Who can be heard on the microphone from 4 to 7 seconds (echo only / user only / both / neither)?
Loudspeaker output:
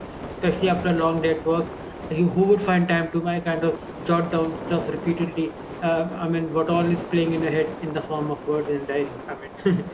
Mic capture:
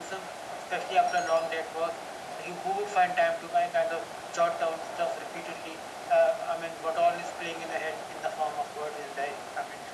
echo only